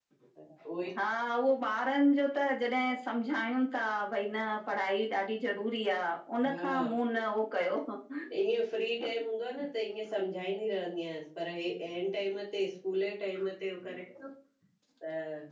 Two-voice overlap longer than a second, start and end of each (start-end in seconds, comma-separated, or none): none